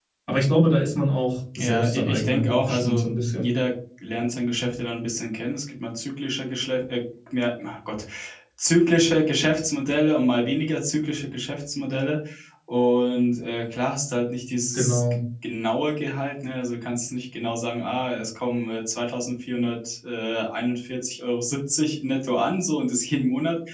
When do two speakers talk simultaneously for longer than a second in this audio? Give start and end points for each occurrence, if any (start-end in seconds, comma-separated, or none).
1.6-3.5